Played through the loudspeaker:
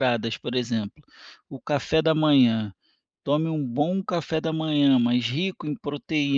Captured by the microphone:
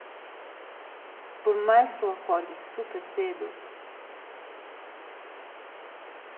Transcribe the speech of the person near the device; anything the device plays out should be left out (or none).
por mais que eu acorde super cedo,